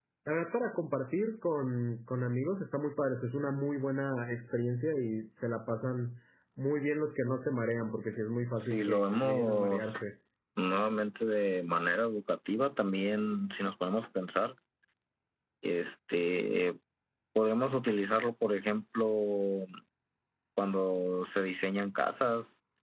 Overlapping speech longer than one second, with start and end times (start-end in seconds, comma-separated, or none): 8.6-10.0